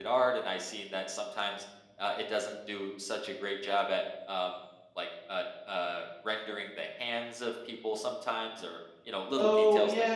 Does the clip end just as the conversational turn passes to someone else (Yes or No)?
Yes